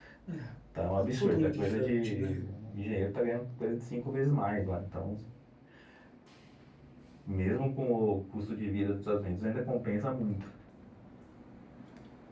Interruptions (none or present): present